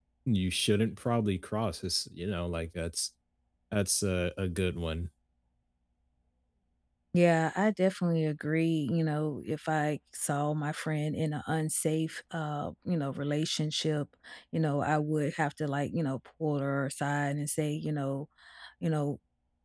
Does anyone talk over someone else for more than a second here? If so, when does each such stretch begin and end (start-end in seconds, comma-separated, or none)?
none